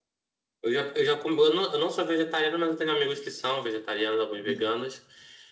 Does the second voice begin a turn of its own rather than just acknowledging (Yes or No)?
No